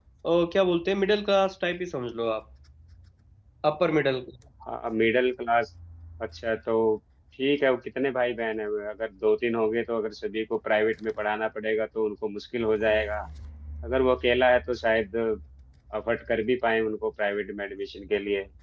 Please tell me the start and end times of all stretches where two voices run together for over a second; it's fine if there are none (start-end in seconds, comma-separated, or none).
none